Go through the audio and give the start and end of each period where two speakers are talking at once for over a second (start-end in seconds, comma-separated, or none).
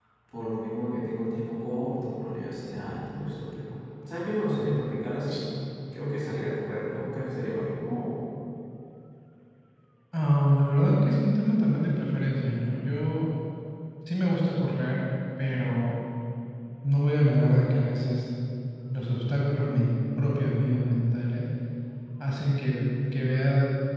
none